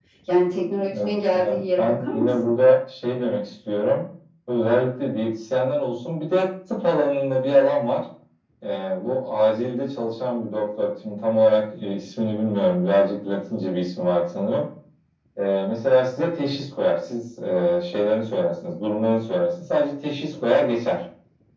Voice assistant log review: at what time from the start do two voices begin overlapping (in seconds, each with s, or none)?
1.0 s